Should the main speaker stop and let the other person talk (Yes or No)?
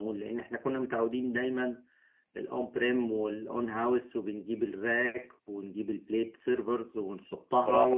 Yes